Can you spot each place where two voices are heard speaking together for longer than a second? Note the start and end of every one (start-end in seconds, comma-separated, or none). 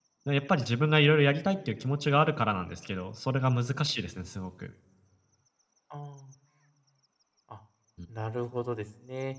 none